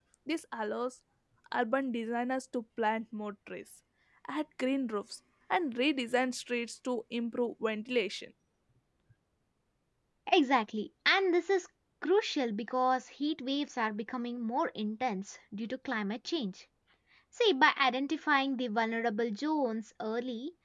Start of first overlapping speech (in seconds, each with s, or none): none